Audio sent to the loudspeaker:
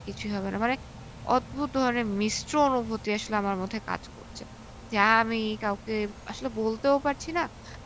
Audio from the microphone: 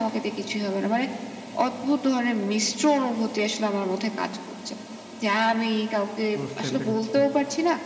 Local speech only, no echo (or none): বুঝতে পেরেছি।